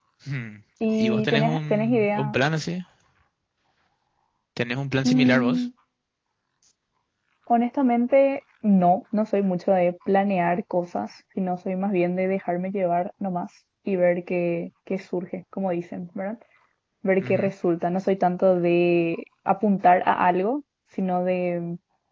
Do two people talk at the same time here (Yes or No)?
Yes